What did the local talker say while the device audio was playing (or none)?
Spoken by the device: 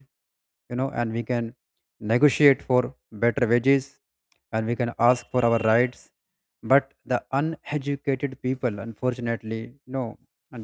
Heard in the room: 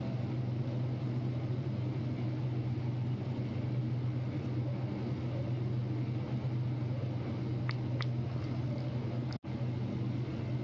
none